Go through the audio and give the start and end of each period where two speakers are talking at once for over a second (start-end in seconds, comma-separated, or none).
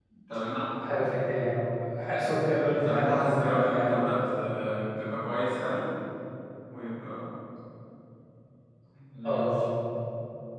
2.8-4.2